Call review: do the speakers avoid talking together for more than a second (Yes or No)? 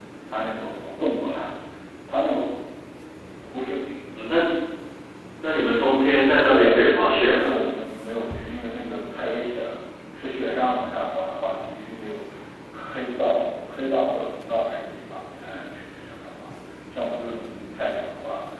No